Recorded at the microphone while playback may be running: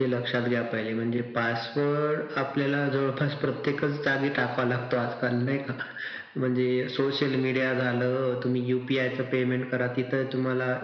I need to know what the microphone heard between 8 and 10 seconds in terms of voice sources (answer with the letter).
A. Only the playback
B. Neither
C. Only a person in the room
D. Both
A